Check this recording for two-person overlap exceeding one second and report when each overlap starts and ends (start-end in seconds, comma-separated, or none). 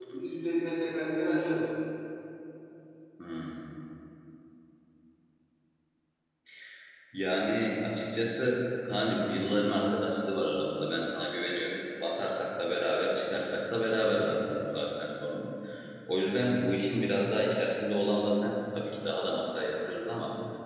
none